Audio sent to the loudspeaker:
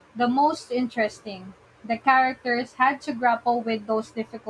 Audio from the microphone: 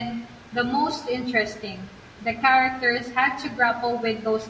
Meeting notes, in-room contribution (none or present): none